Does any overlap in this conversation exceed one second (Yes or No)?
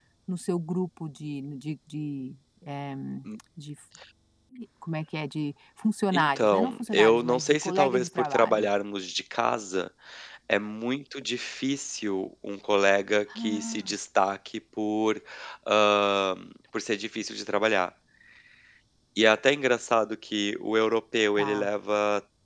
Yes